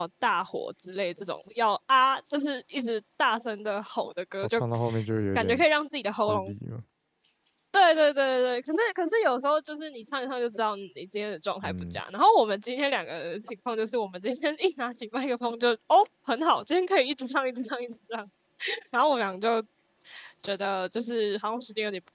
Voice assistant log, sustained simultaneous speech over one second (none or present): none